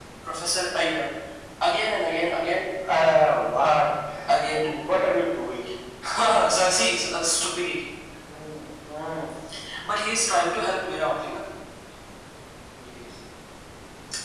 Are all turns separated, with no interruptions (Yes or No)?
Yes